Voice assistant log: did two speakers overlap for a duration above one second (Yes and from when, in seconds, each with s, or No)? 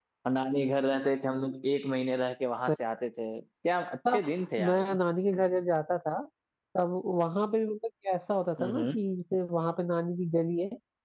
No